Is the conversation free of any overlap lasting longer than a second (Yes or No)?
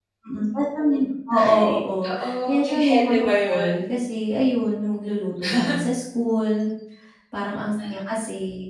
No